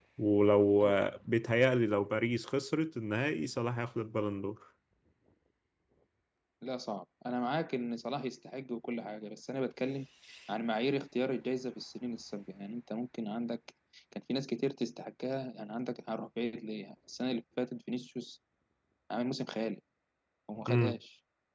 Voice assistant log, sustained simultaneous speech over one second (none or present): none